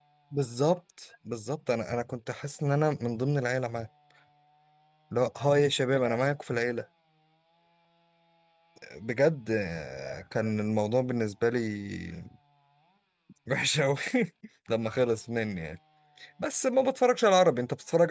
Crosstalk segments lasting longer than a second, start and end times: none

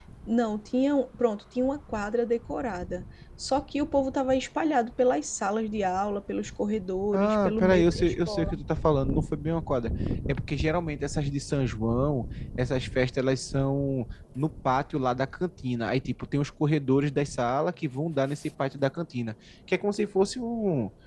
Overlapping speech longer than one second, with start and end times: 7.2-8.5

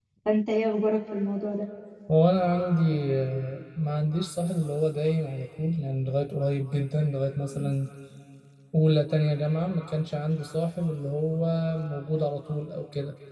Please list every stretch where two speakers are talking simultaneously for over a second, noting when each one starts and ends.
none

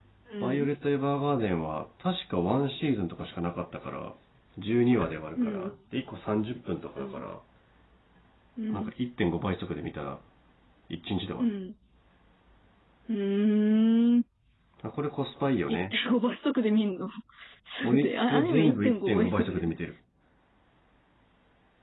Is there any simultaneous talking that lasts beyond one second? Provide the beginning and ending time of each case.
17.8-19.7

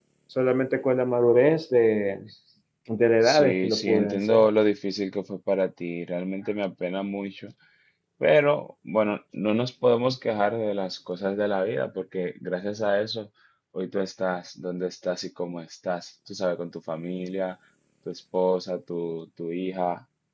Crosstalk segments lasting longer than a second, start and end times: 3.2-4.5

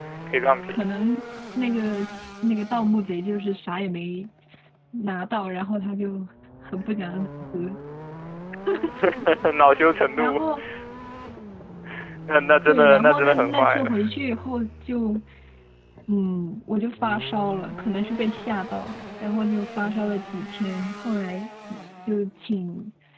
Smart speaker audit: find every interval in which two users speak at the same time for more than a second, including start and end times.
12.7-13.9

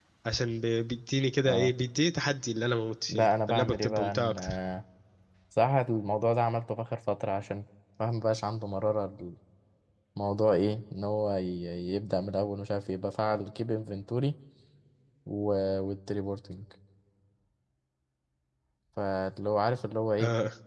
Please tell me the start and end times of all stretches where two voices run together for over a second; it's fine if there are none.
3.1-4.6

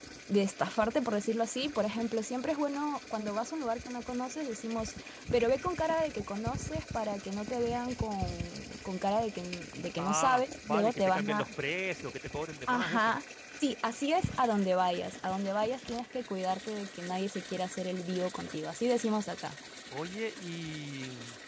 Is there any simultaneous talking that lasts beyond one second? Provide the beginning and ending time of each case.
10.0-11.5

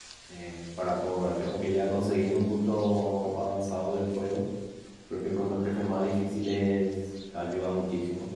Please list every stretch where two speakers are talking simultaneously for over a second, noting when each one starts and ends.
none

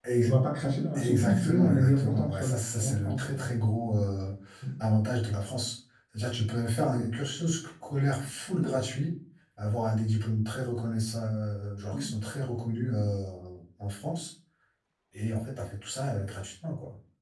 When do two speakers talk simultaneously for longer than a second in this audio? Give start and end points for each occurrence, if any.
0.9-3.4

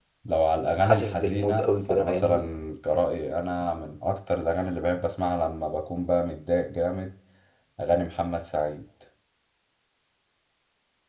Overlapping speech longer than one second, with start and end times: 0.8-2.4

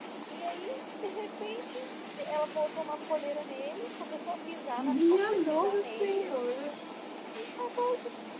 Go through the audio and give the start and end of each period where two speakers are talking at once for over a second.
4.8-6.3

